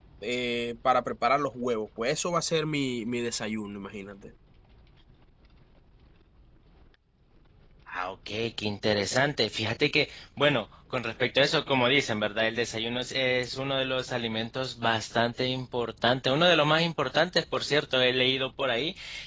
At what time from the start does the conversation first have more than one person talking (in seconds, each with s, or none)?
none